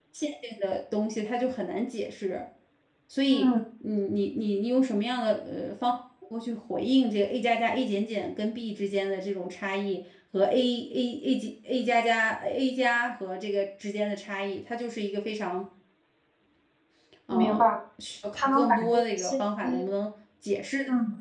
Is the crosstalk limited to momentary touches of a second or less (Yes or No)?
No